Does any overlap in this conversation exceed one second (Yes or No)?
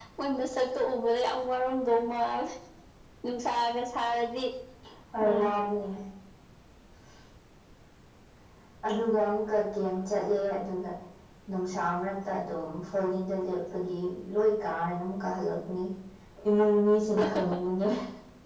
No